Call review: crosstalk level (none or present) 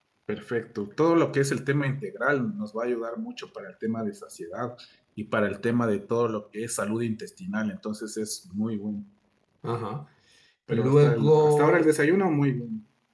present